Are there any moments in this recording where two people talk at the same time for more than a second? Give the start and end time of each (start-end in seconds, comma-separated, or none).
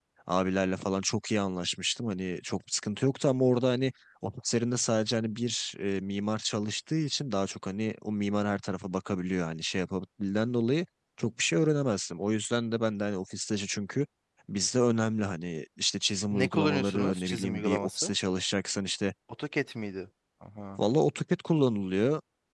16.3-18.1